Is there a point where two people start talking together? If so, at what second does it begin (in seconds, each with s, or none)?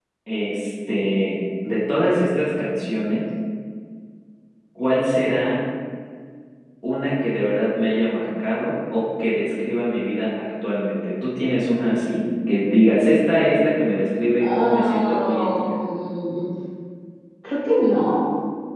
14.4 s